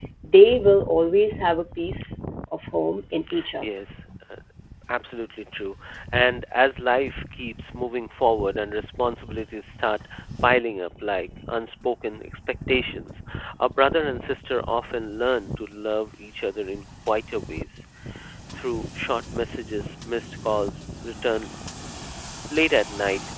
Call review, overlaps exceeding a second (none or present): none